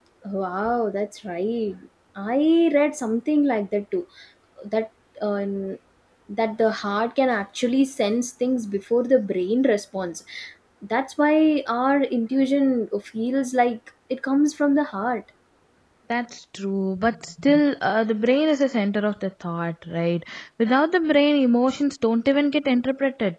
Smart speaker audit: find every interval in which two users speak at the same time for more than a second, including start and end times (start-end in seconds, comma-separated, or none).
none